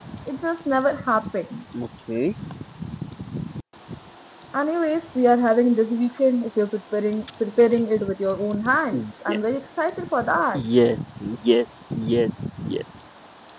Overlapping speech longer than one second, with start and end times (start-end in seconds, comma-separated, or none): none